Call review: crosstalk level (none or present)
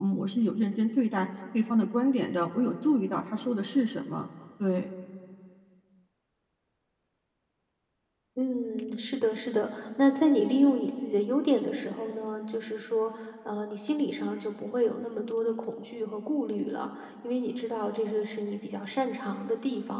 none